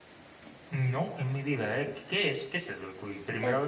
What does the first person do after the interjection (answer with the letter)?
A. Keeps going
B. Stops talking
B